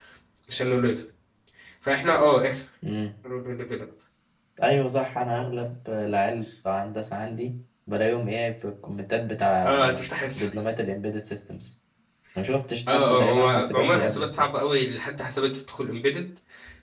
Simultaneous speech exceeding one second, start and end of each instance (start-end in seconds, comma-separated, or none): 12.9-14.5